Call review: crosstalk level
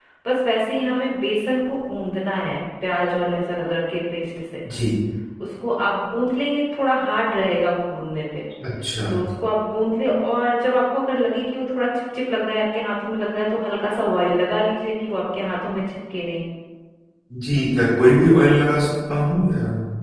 none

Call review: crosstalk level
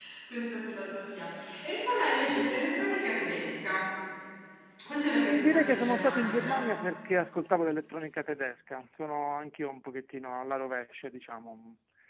present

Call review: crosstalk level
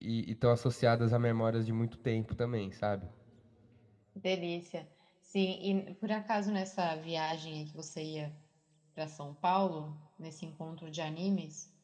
none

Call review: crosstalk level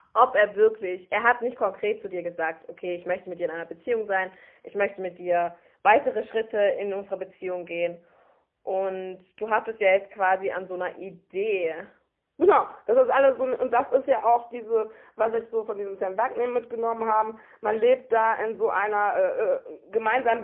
none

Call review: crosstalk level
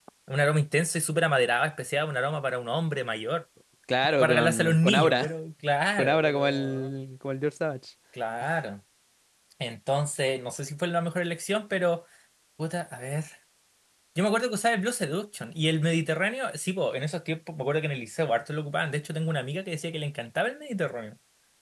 present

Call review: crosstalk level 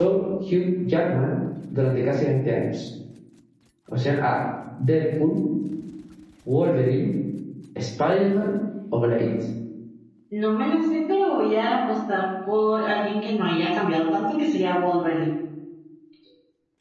none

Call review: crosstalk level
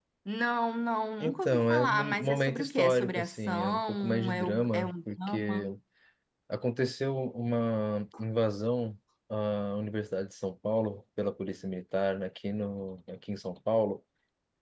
present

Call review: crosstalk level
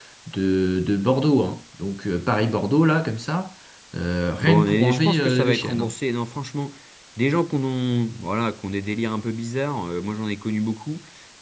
present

